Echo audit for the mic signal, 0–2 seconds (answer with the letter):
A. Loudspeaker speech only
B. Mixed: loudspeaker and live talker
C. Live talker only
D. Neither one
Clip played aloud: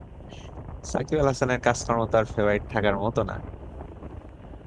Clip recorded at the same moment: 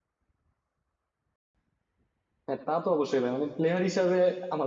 D